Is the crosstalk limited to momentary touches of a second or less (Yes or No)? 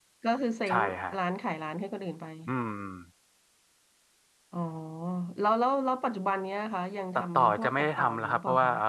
No